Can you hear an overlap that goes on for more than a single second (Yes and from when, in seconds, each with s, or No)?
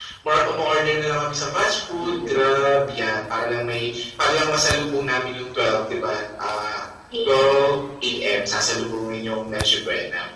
No